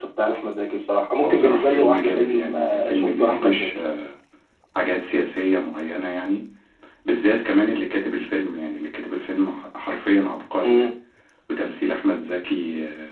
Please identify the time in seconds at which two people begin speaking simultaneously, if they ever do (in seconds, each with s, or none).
1.2 s